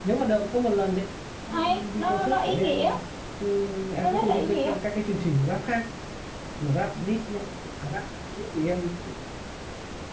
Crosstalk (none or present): present